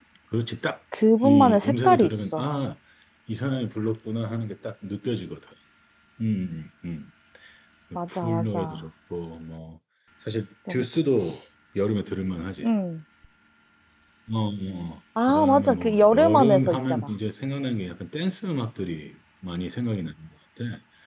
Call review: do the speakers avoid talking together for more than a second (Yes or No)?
No